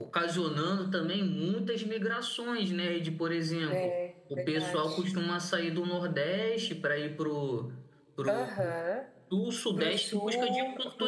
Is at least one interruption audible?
Yes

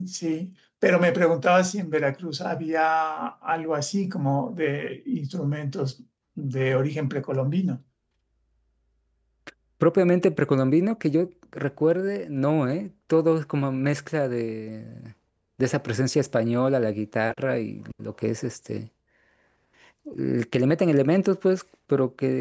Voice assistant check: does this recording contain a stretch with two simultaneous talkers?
No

